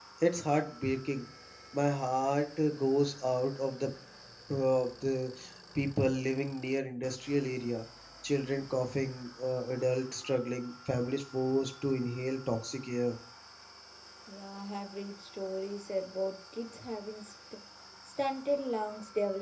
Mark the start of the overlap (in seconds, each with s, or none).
none